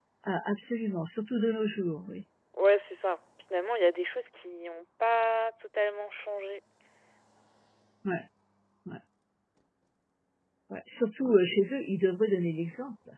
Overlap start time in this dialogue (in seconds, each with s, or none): none